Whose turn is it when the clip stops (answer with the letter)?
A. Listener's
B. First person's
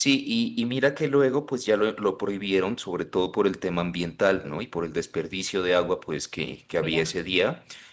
B